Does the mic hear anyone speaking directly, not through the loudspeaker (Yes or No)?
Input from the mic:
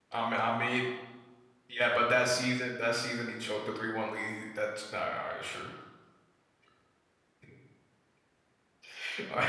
Yes